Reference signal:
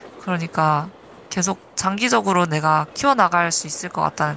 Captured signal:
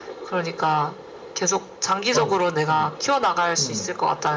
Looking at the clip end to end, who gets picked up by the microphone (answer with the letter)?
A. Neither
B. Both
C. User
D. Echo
B